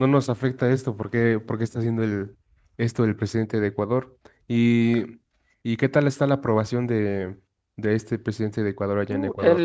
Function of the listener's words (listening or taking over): taking over